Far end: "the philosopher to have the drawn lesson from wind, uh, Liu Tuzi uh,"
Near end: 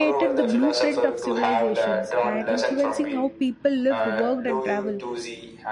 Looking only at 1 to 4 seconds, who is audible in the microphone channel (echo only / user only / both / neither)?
both